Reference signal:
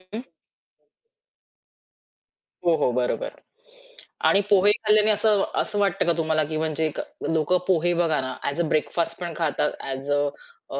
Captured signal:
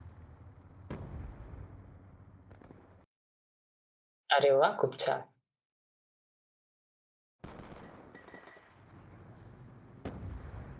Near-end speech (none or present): present